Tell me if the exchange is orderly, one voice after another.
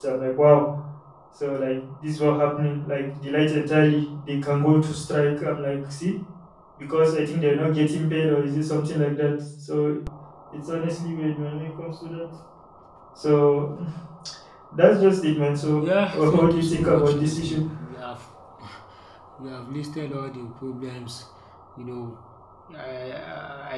No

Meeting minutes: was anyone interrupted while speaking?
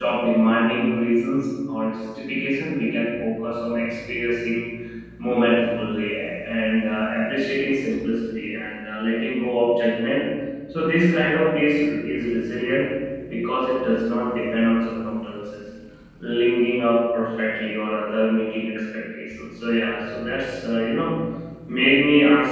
No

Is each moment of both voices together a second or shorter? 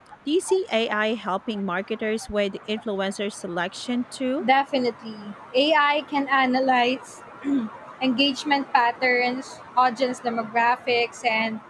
Yes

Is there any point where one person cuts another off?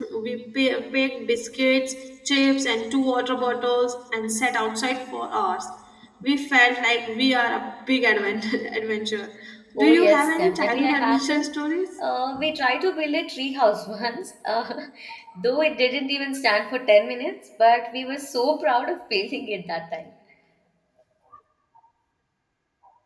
Yes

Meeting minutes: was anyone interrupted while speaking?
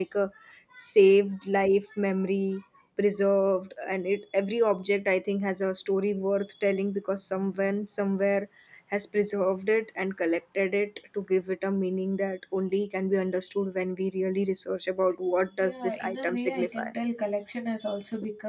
Yes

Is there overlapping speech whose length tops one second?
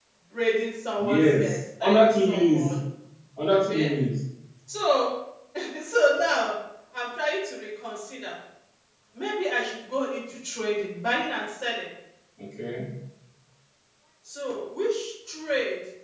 Yes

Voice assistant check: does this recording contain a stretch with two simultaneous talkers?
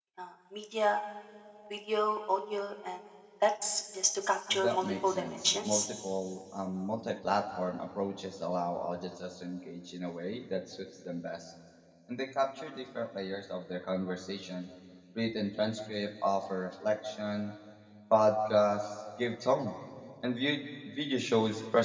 Yes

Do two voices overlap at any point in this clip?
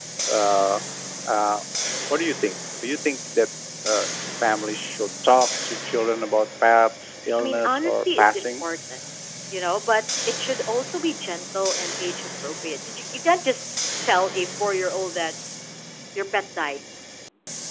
Yes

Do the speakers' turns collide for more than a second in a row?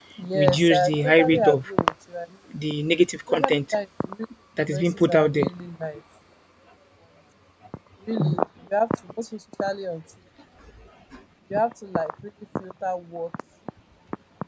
Yes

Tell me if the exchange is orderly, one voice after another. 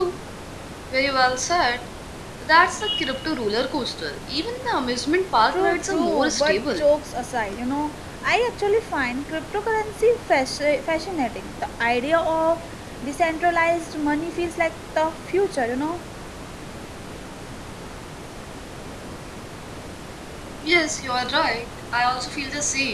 No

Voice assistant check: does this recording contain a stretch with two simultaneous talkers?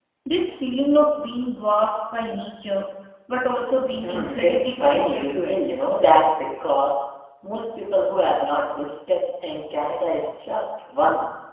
Yes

